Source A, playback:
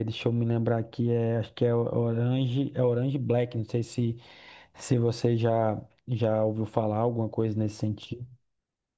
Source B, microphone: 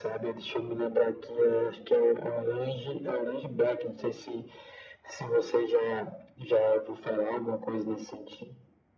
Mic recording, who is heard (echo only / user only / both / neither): echo only